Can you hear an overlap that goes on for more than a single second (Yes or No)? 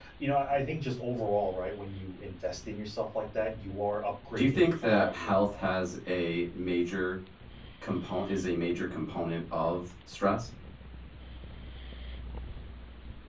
Yes